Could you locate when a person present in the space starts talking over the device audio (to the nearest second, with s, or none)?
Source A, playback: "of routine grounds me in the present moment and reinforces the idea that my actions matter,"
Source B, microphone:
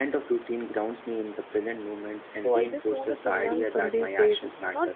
2 s